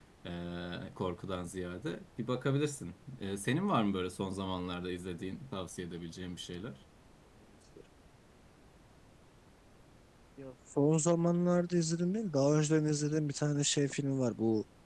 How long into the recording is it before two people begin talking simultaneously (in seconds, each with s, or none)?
none